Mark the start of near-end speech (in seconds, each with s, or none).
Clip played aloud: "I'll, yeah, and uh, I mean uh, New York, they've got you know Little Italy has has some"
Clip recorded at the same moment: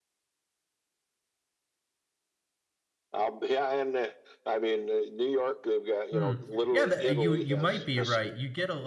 6.1 s